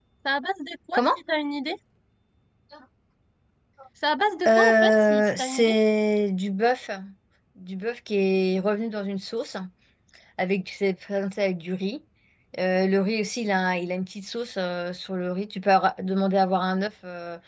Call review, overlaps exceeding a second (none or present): present